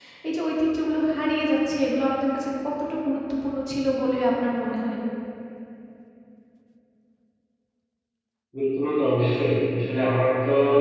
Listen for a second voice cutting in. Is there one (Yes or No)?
No